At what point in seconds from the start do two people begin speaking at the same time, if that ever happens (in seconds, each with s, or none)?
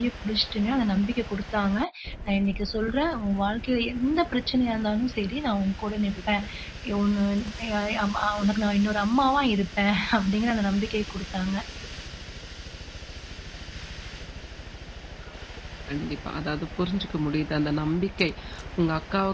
none